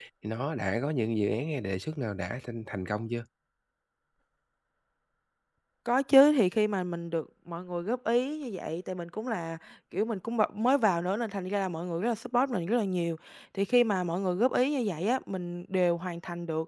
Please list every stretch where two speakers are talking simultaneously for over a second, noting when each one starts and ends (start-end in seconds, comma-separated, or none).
none